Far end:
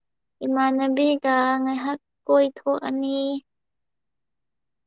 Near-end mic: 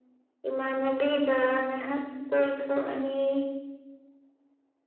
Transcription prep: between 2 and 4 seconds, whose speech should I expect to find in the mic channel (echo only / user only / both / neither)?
echo only